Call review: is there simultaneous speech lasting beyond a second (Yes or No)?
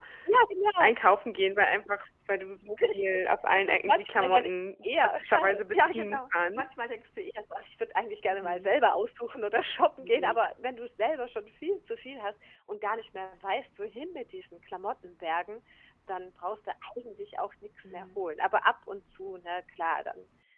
Yes